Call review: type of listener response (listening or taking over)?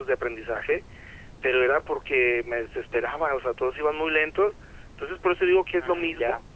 listening